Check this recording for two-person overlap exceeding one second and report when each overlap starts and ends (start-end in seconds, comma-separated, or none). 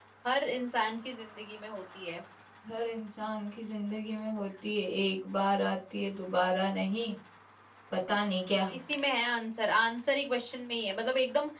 none